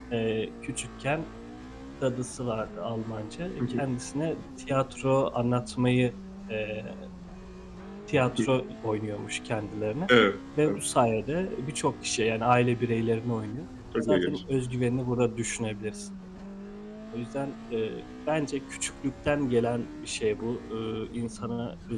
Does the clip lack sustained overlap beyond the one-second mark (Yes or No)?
Yes